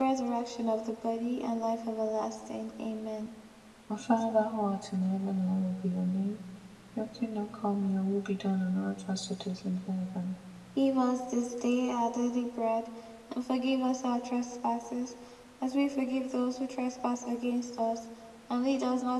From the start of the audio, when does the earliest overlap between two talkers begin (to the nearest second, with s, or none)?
none